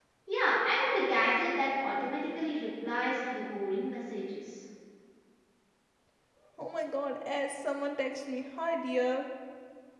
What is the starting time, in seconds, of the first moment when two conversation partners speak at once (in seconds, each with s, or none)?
none